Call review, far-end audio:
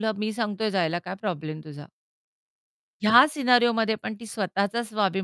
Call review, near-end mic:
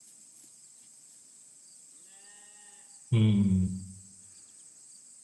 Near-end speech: present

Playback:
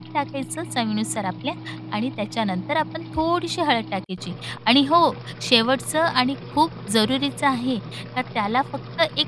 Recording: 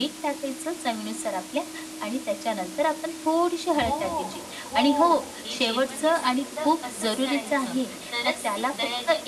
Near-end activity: present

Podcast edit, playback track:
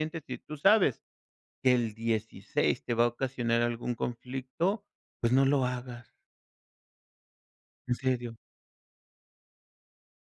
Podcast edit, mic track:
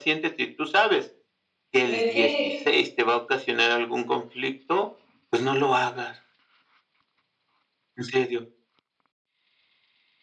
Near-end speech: present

